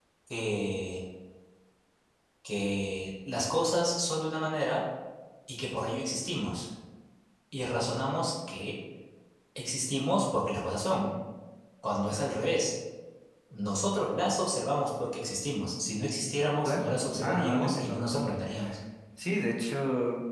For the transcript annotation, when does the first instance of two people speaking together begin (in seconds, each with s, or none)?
16.6 s